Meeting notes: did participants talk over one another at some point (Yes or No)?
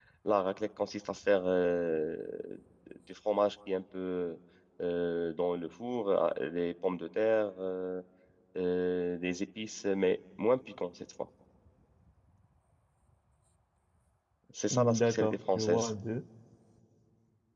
Yes